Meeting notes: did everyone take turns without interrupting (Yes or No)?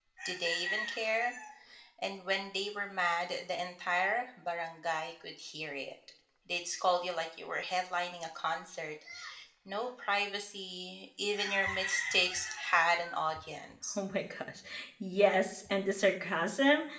Yes